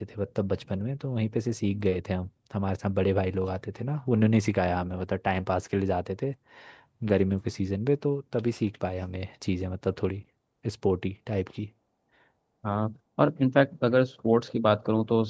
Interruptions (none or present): none